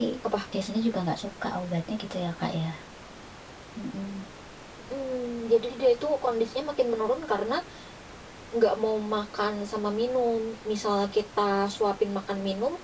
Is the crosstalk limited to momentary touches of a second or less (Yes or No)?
Yes